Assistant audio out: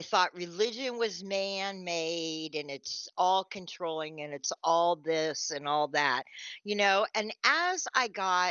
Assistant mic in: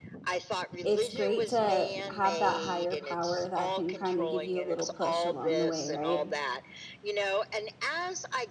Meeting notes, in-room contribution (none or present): present